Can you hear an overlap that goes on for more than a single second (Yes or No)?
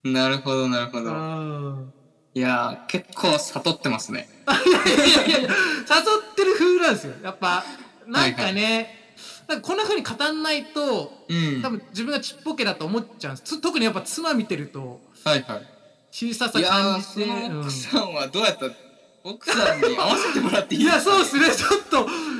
Yes